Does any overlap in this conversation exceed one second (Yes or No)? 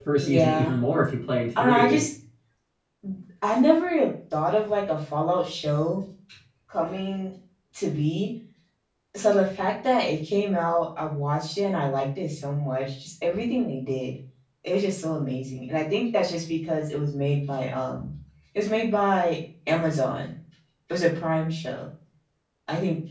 No